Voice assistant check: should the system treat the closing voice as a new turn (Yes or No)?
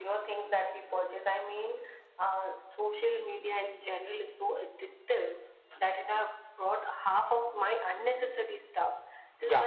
No